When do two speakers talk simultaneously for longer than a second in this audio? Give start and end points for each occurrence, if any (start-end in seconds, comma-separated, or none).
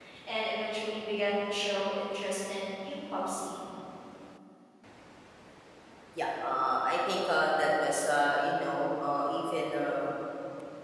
none